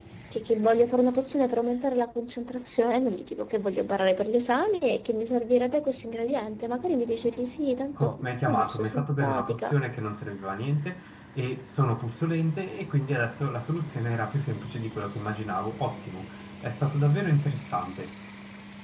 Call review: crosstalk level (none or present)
present